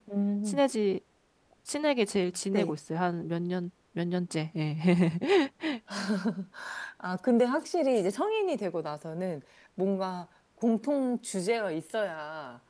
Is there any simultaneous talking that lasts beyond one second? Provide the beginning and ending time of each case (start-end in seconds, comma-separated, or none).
none